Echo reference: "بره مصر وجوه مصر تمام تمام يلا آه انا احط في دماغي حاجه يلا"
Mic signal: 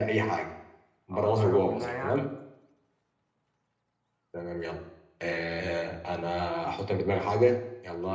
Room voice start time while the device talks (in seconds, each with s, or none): 1.1 s